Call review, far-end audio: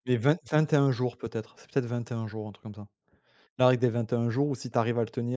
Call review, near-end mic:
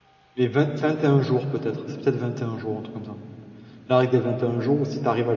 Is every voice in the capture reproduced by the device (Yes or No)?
Yes